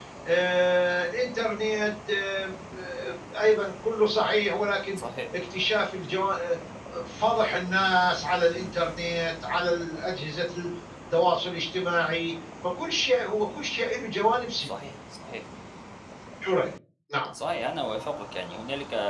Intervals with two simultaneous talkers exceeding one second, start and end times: none

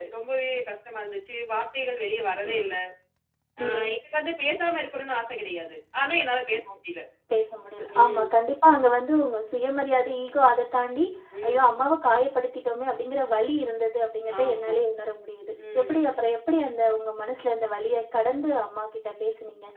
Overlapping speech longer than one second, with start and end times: none

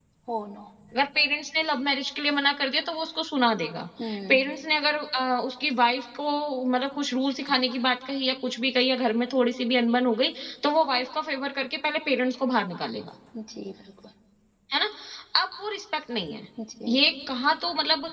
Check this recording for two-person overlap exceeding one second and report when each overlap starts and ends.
none

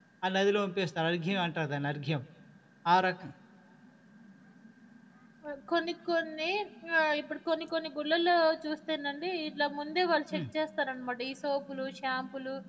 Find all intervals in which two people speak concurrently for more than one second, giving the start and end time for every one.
none

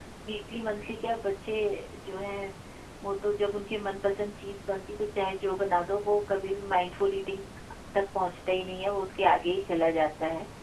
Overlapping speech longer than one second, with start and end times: none

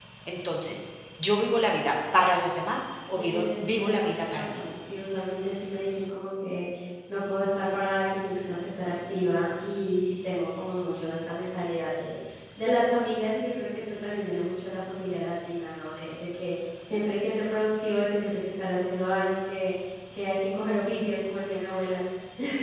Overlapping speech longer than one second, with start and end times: 3.1-4.6

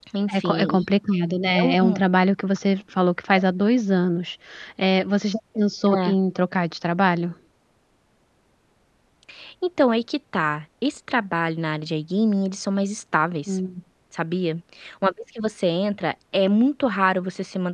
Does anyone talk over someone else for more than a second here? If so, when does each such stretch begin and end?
none

